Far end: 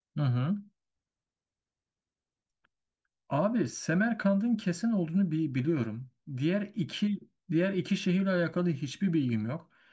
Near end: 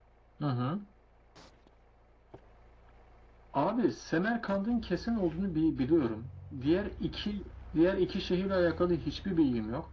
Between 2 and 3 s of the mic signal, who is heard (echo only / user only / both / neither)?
neither